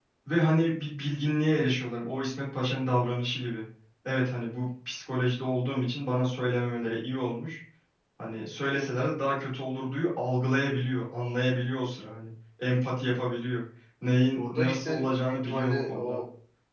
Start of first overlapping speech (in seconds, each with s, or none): 14.4 s